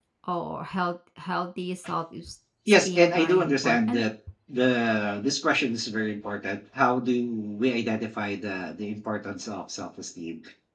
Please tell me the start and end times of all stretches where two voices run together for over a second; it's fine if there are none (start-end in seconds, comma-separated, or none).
2.7-4.0